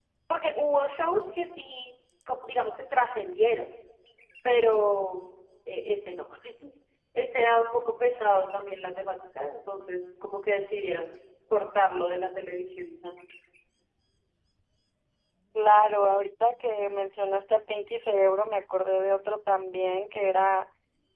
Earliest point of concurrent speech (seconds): none

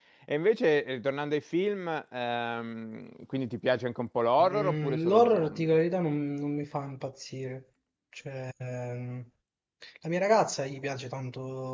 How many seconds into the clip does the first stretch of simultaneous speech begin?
4 s

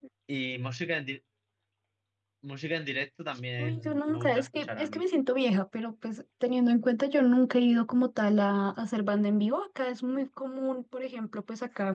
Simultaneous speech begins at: 4 s

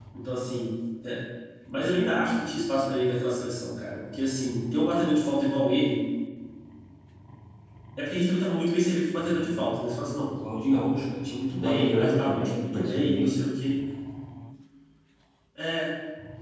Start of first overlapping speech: 12 s

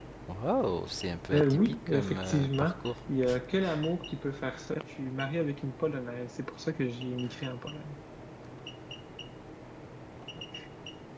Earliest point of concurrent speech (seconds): 1 s

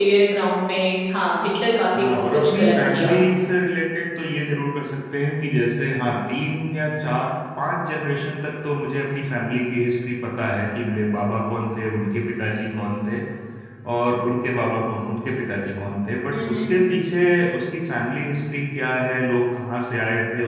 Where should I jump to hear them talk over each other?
2 s

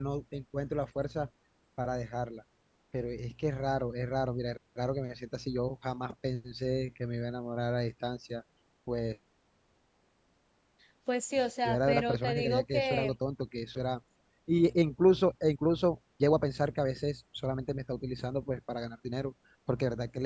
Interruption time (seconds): 12 s

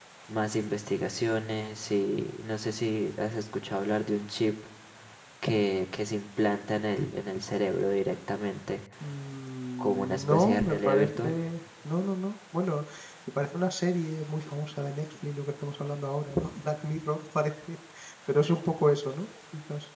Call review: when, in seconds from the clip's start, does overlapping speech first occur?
10 s

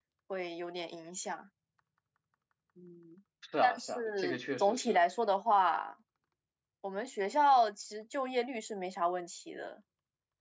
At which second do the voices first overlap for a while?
4 s

